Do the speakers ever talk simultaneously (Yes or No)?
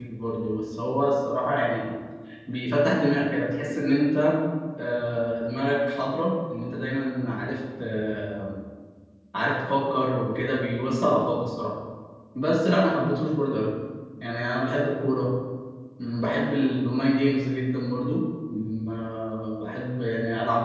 No